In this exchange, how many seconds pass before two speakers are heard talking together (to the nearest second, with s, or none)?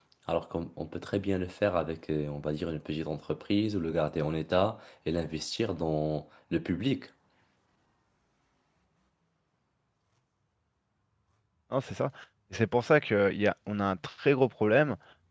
none